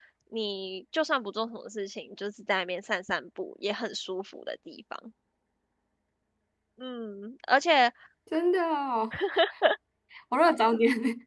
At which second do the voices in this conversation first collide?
none

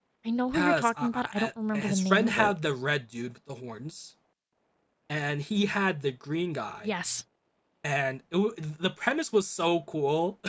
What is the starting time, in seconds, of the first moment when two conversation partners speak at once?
0.5 s

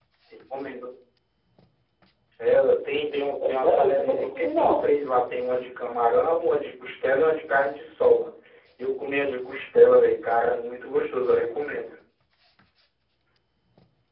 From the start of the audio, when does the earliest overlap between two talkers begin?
3.4 s

